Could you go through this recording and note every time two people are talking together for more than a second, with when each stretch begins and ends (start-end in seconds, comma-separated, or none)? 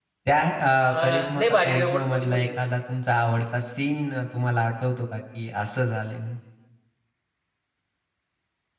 0.9-2.5